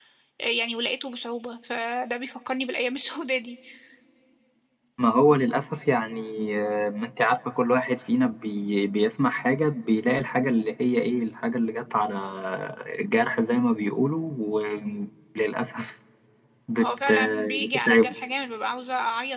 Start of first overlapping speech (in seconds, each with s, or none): 16.8 s